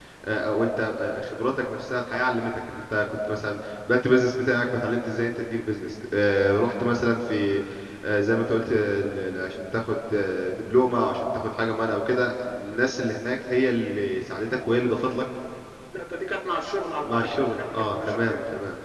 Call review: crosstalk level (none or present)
present